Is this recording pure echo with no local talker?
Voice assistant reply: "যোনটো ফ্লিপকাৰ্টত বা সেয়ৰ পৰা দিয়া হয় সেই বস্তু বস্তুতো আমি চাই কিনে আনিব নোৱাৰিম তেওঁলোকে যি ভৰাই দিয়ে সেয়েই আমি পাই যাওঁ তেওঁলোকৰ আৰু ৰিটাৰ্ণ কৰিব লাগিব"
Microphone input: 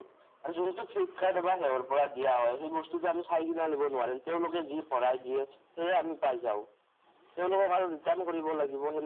Yes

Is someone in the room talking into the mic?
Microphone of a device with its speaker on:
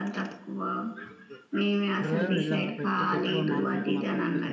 Yes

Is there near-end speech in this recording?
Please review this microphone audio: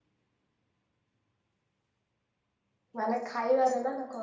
Yes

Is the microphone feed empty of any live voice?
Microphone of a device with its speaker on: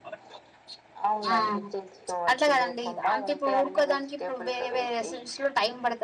No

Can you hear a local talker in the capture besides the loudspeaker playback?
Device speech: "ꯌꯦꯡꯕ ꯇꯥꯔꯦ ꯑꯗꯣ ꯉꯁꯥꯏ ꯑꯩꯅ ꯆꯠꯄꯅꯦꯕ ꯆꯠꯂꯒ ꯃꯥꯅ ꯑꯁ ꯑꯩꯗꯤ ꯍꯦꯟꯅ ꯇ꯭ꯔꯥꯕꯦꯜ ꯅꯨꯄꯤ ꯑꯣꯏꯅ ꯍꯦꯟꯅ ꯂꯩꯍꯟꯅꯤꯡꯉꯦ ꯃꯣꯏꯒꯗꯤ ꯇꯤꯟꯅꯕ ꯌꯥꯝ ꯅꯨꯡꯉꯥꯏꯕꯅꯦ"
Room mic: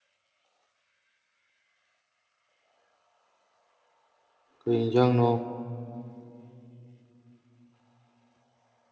Yes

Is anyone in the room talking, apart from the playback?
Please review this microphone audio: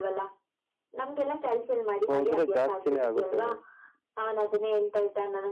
Yes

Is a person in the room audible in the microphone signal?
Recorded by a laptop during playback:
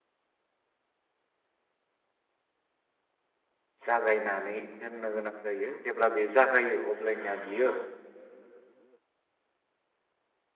Yes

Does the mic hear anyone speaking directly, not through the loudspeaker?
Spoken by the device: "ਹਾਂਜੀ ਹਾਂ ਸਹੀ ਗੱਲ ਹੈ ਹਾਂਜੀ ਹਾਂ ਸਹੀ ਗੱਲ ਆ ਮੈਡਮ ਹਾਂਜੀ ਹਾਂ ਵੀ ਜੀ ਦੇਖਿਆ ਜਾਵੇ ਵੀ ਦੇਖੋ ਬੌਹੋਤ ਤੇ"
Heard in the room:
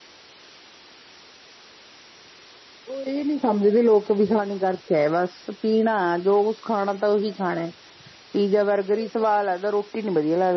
Yes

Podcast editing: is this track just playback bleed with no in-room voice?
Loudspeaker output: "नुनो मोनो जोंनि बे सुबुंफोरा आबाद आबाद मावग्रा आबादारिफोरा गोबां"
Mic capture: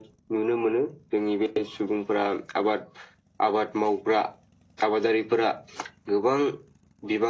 Yes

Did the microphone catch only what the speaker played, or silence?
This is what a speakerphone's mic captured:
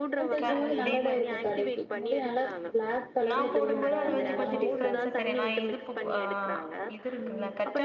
No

